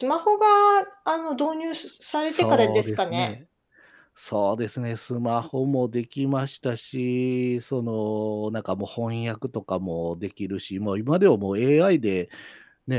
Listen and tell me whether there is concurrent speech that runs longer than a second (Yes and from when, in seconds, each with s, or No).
Yes, from 2.0 s